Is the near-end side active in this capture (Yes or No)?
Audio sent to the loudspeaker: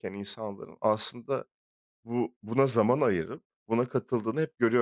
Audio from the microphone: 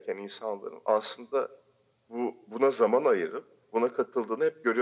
No